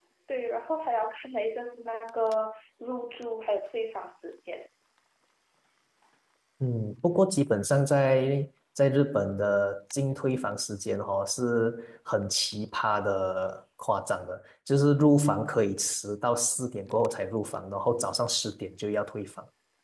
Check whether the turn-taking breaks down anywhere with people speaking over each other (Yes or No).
No